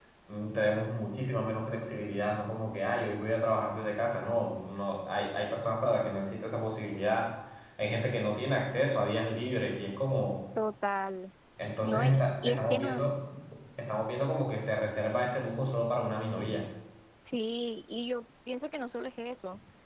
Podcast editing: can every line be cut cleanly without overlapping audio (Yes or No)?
No